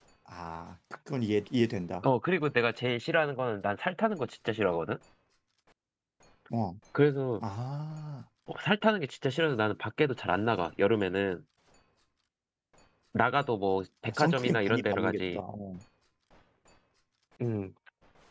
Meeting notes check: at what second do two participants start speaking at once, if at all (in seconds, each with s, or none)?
14.1 s